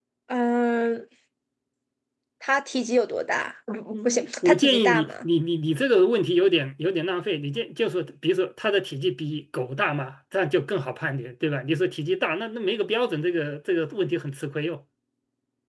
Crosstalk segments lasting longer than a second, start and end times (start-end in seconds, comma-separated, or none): 3.9-5.3